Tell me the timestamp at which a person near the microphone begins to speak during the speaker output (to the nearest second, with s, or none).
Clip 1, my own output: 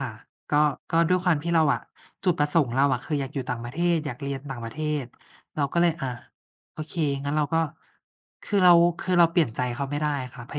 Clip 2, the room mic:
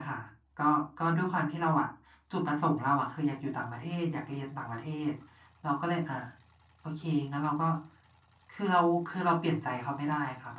none